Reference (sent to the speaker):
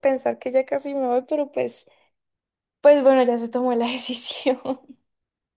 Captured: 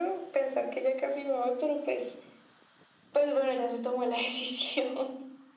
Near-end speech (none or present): none